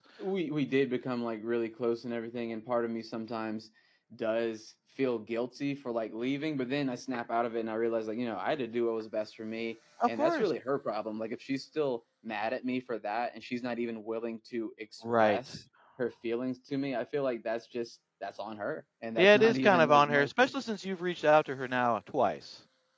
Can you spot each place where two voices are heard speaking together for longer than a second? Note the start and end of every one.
19.2-20.5

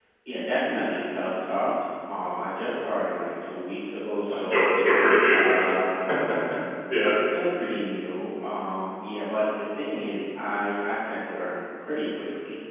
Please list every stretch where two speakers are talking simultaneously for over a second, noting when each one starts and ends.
none

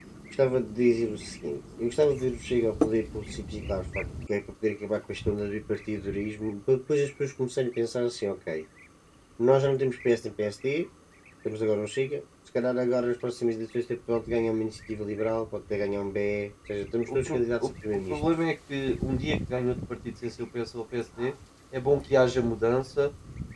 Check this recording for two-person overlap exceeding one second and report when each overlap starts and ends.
17.1-18.5

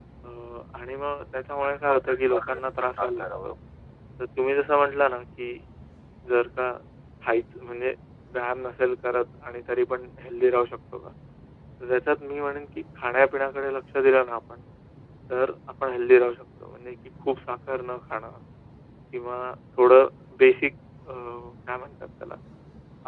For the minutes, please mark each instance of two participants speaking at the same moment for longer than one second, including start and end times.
1.9-3.5

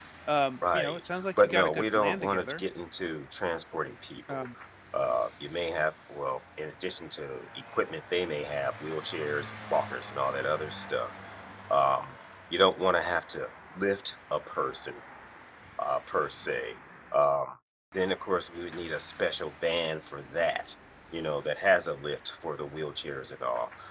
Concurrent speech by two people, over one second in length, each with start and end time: 0.7-2.6

